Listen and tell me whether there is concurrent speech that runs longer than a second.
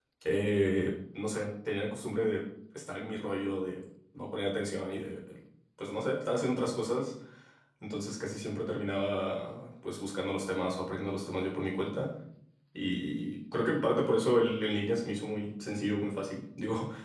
No

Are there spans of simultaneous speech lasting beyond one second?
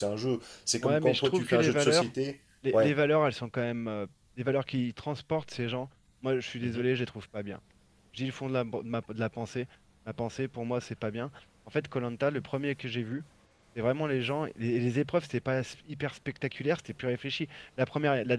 Yes, from 0.8 s

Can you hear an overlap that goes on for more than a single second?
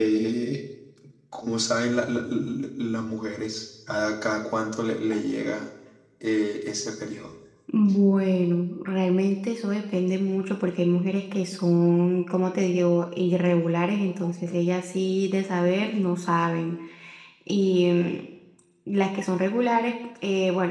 No

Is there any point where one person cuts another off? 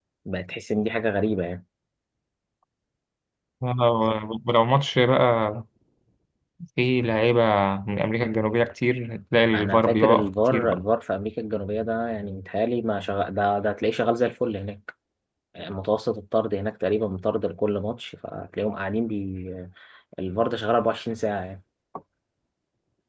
Yes, from 9.5 s

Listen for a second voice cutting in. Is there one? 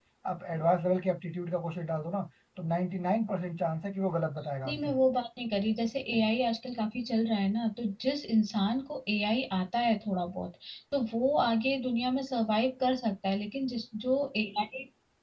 No

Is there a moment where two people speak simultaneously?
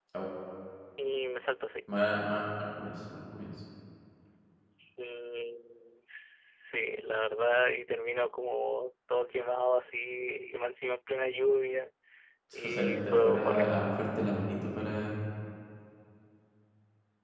Yes, from 12.6 s

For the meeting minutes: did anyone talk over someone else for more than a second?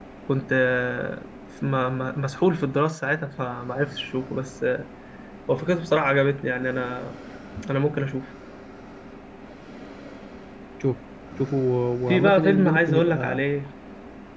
Yes, from 12.1 s

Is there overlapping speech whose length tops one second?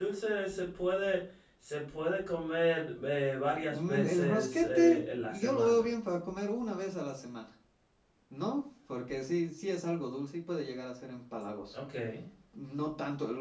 Yes, from 3.7 s

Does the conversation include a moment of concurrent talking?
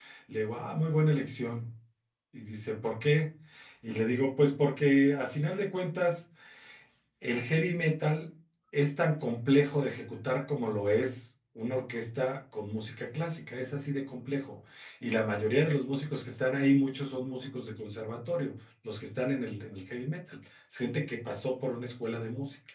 No

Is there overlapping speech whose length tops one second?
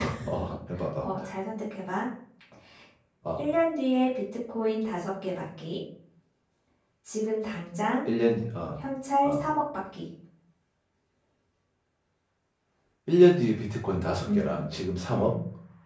No

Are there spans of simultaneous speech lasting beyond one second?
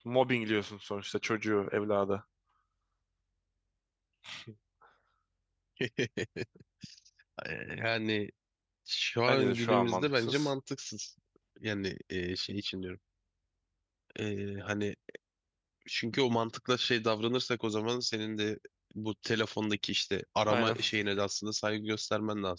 Yes, from 9.3 s

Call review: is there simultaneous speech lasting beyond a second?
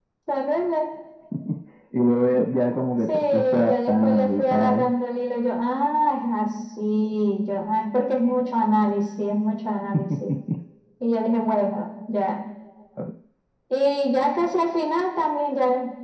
Yes, from 3.1 s

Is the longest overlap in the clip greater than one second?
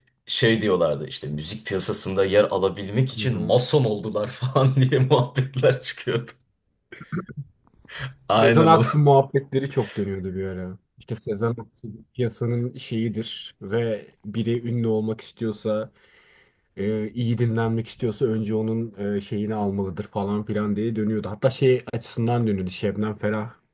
No

